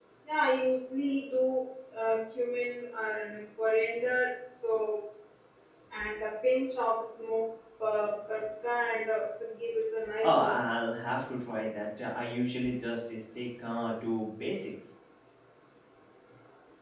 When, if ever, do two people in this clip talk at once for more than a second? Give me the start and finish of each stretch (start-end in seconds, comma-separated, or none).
none